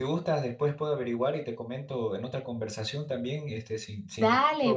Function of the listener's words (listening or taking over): taking over